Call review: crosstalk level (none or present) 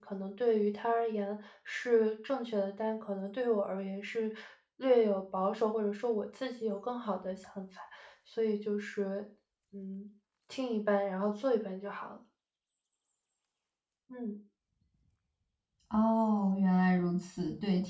none